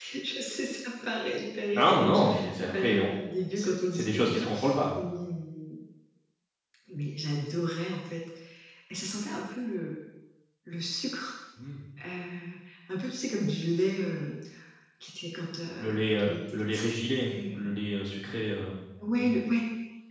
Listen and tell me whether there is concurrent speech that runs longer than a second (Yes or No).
Yes